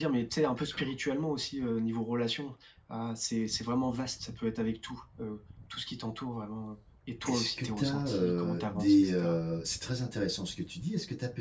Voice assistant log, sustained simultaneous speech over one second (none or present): present